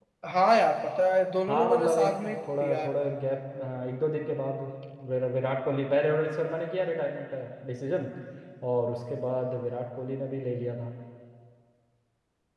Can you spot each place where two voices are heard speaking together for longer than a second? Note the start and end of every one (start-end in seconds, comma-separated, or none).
1.5-2.9